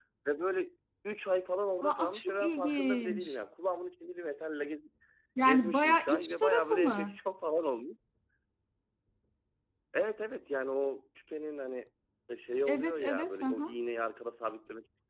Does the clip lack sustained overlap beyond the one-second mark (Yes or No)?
No